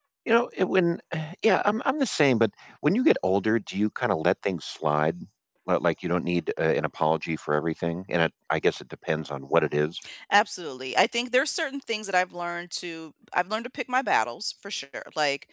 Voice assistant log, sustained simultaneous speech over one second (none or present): none